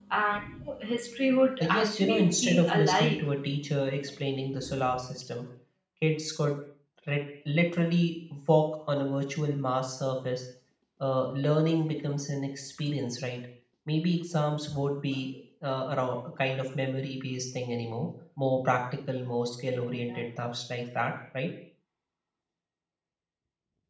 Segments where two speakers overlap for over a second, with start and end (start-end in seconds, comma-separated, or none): 1.6-3.3